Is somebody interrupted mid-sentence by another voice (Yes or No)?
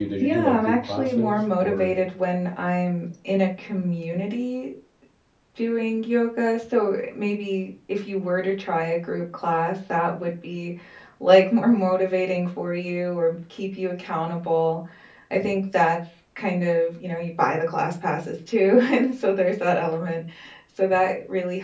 Yes